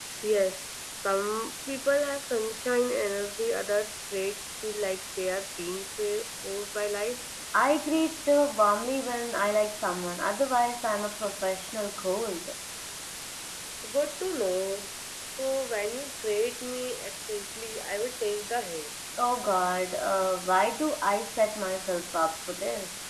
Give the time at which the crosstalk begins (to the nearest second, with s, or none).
none